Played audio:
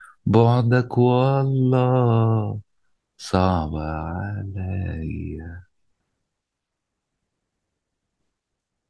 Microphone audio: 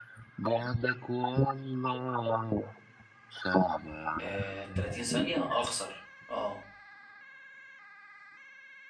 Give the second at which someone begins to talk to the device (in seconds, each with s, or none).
4.2 s